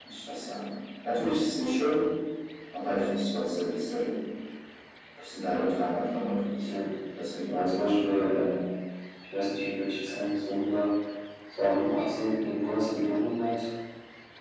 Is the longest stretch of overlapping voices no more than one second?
Yes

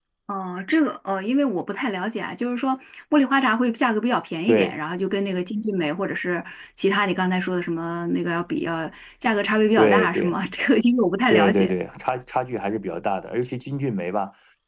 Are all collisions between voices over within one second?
Yes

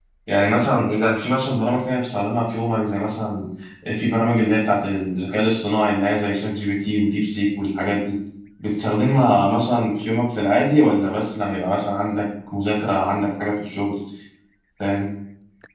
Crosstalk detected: No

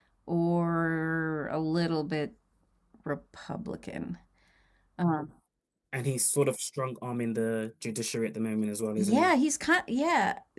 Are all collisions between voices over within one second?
Yes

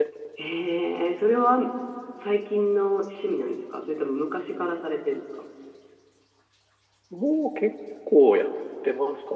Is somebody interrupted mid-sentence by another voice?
No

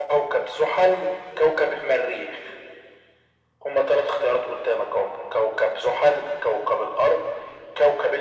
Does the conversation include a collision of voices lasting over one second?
No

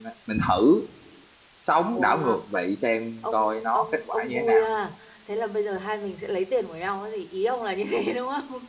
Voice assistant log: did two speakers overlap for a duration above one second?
Yes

